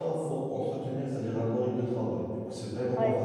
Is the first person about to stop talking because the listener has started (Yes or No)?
Yes